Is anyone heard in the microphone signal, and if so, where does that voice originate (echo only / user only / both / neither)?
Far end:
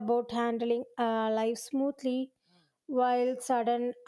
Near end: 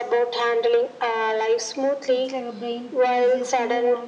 both